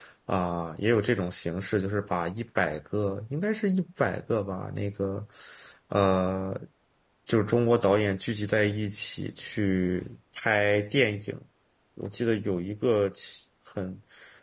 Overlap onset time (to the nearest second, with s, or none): none